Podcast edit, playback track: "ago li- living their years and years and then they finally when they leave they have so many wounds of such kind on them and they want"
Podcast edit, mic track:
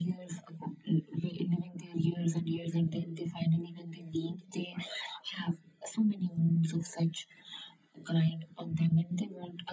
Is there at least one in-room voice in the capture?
No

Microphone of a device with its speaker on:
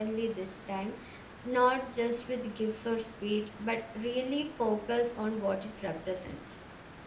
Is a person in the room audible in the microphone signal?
Yes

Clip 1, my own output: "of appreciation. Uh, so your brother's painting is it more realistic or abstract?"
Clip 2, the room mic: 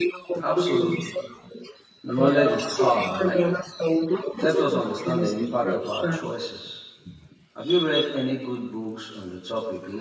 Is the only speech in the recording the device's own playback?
No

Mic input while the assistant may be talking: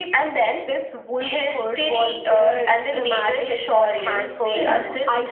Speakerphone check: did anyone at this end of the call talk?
Yes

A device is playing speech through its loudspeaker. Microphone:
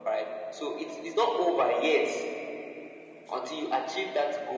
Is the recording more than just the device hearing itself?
No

